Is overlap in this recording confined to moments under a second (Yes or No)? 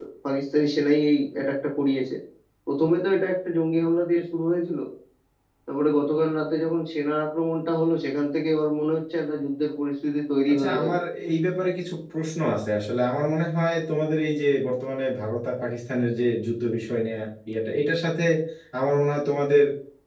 Yes